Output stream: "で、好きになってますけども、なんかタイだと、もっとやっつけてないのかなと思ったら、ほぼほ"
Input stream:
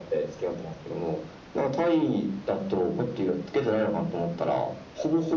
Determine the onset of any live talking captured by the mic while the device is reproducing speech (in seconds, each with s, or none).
none